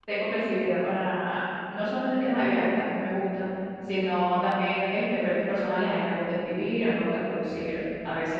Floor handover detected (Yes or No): No